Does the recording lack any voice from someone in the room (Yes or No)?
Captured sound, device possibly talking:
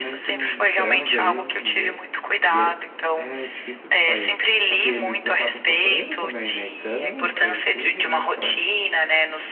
No